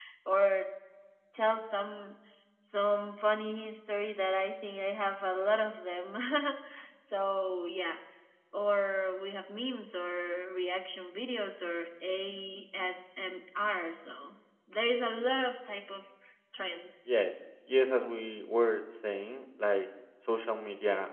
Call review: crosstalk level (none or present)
none